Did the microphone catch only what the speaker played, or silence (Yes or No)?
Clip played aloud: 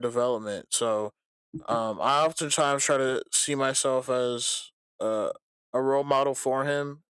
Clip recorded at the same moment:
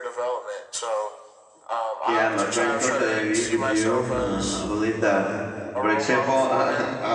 No